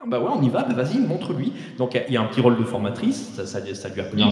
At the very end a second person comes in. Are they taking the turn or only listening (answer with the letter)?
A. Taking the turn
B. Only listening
B